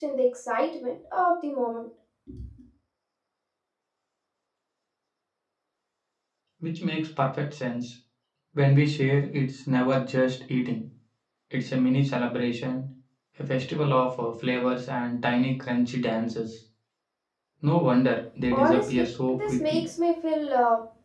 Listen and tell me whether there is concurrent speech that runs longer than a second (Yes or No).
Yes